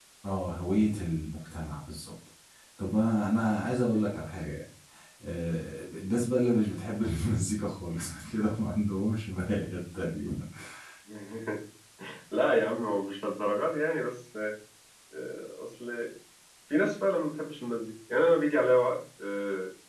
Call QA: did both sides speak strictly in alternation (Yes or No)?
Yes